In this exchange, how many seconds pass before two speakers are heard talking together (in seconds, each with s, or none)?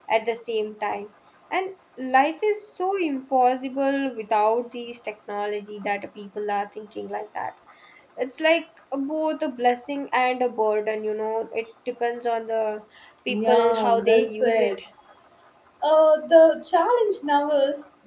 13.3 s